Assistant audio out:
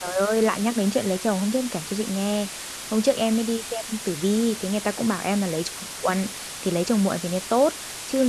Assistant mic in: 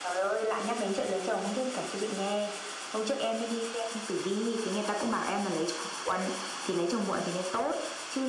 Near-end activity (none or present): none